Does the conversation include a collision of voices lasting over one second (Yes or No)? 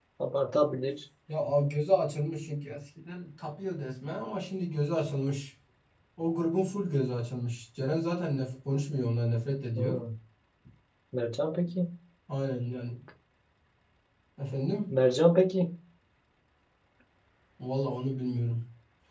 No